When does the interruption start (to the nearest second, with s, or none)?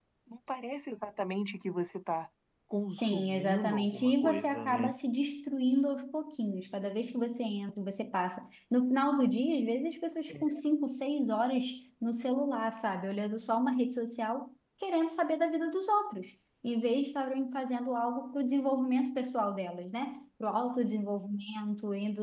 3 s